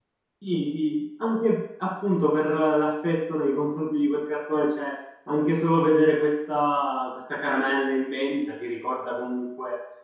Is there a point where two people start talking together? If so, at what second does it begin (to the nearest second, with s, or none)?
none